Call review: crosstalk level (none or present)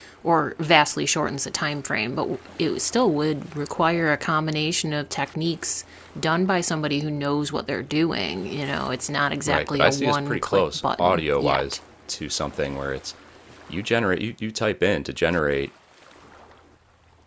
present